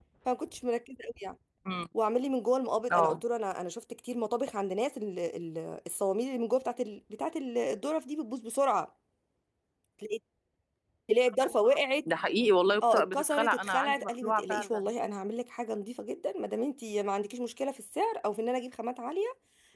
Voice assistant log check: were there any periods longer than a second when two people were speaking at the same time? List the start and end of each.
12.8-14.8

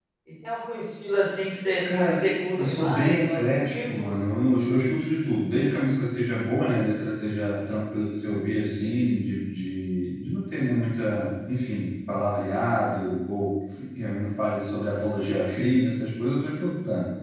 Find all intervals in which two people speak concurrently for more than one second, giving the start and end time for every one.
2.6-4.1

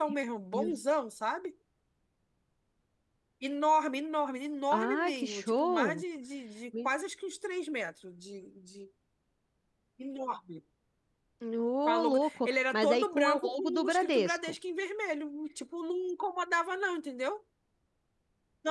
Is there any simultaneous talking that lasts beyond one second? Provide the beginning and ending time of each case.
4.7-6.0, 11.8-14.5

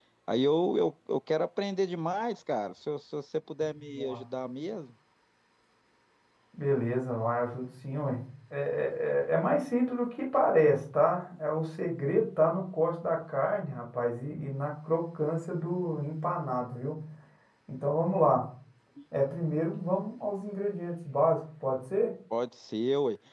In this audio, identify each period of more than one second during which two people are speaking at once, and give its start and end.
none

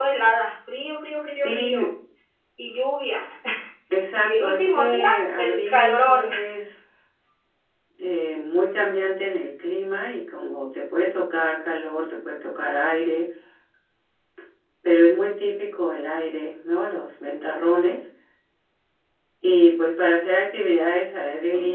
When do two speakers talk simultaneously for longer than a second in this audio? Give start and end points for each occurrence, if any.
4.2-6.3

